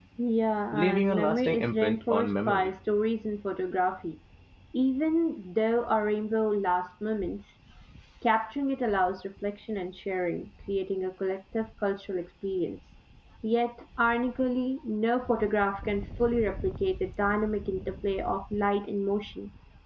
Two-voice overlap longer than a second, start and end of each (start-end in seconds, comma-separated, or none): 0.7-2.7